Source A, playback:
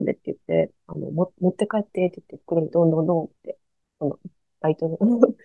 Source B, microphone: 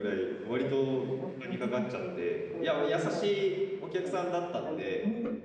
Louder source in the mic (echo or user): user